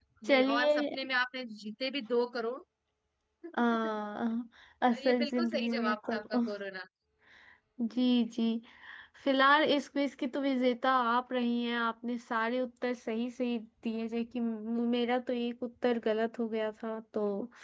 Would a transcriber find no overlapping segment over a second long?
No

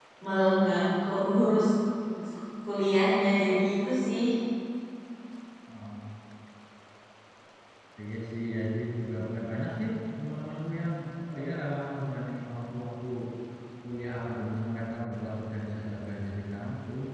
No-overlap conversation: Yes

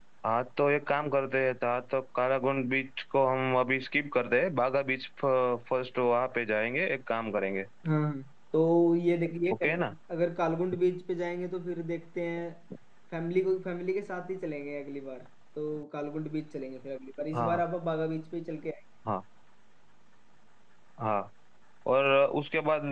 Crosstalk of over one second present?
No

